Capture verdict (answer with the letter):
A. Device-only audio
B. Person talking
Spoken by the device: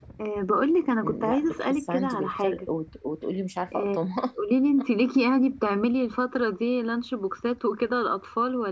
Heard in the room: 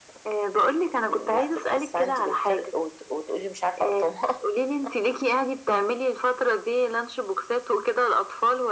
A